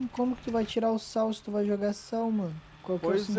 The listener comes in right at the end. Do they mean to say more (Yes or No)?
Yes